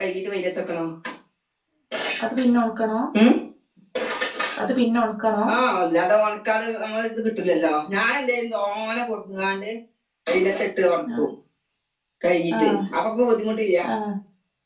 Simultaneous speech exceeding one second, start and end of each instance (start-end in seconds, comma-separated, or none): none